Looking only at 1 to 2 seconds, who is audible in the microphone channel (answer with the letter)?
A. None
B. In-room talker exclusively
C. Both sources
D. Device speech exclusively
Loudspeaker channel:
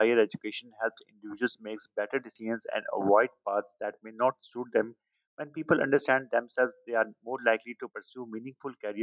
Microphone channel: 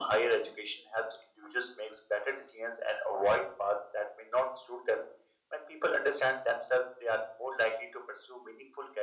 D